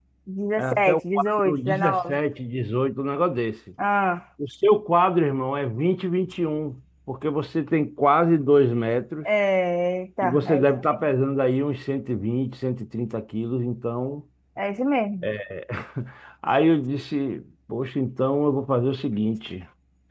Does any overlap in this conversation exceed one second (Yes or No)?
Yes